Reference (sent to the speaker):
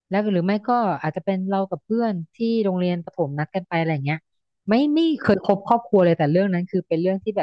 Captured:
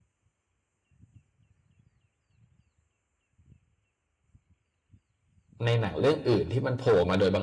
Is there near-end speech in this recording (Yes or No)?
Yes